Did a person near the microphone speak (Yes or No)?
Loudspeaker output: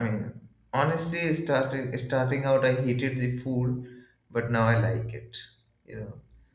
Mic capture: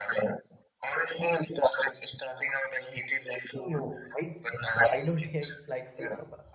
Yes